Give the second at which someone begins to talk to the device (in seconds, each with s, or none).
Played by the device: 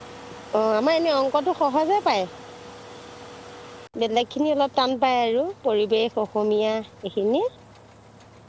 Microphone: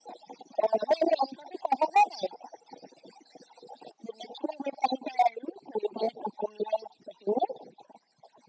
none